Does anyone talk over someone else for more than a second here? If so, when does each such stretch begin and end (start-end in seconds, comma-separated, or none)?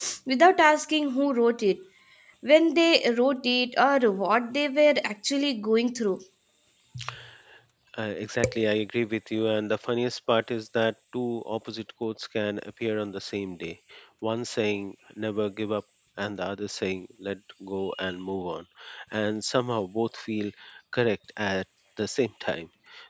none